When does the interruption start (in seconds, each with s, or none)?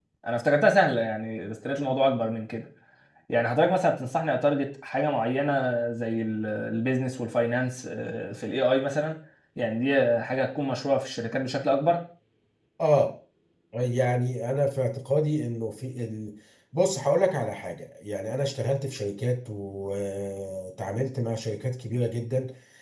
none